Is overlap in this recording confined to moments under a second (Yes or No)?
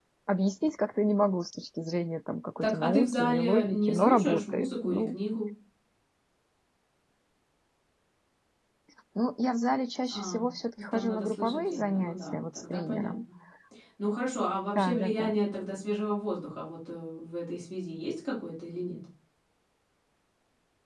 No